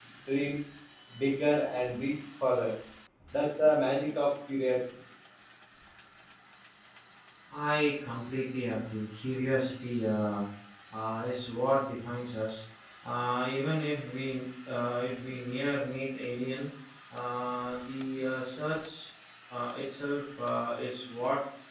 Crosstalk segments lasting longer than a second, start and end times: none

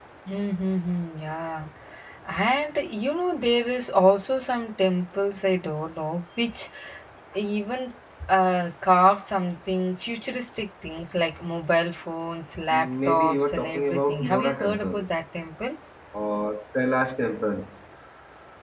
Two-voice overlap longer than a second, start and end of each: 12.7-15.1

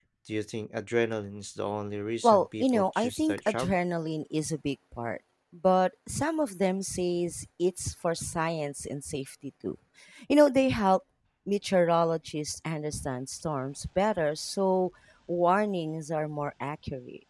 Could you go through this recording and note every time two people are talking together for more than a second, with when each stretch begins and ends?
2.2-3.8

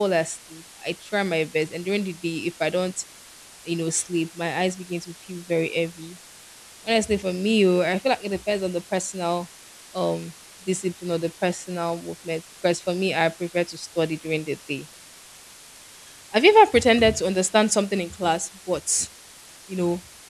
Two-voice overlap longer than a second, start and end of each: none

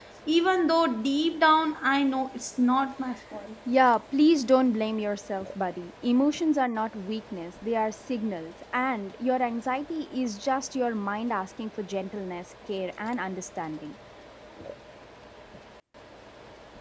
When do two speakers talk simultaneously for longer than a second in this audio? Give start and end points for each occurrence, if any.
none

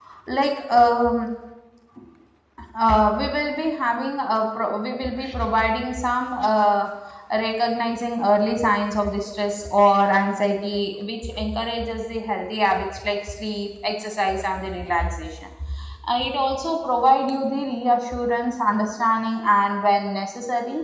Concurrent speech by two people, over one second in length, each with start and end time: none

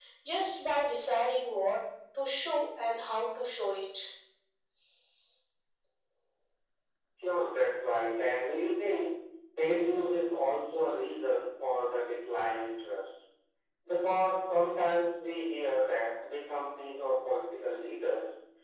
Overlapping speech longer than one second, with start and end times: none

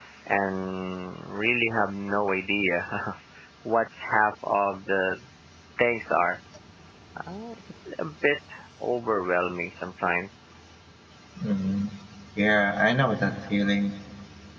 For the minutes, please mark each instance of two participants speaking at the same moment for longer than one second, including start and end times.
none

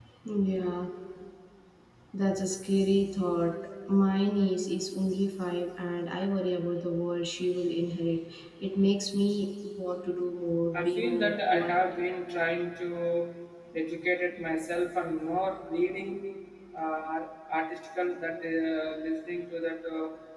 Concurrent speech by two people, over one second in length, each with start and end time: 10.8-12.0

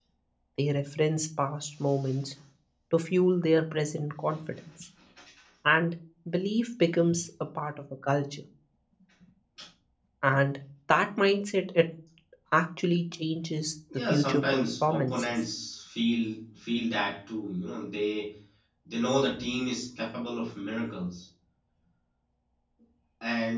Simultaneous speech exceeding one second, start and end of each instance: 14.0-15.4

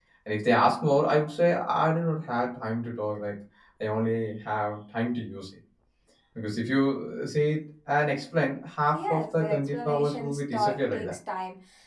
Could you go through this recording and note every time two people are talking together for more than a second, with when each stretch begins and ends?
8.9-11.1

